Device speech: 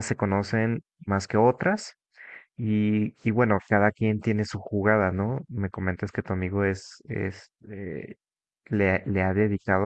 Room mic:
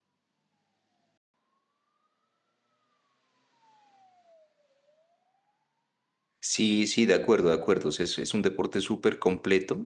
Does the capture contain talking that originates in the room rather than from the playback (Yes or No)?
Yes